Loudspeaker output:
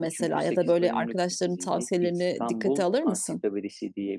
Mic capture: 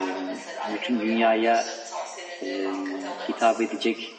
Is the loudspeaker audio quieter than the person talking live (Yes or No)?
Yes